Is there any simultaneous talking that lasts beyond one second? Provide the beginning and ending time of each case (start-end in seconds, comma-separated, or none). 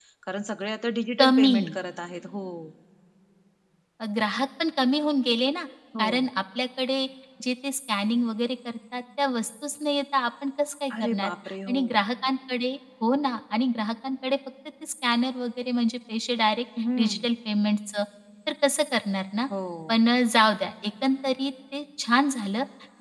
none